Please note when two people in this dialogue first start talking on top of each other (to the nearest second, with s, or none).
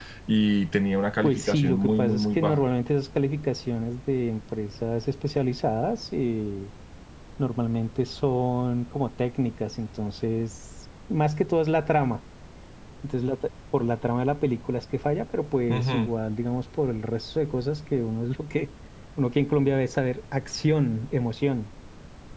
1 s